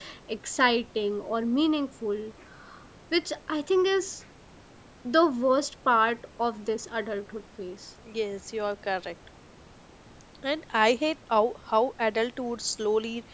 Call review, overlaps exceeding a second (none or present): none